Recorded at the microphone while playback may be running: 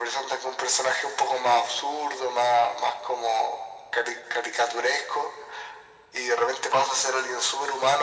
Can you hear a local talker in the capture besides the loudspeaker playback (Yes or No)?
No